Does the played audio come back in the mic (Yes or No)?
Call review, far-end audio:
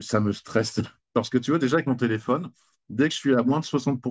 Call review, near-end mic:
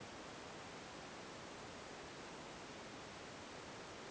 No